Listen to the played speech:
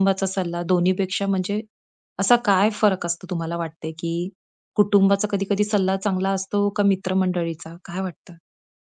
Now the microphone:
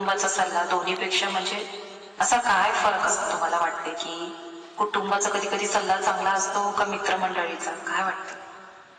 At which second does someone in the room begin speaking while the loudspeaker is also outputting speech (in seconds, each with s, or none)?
none